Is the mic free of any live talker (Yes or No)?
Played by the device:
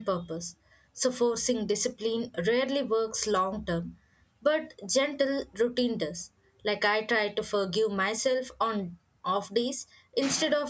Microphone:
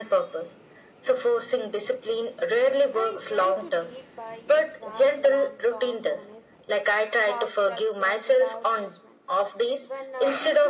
No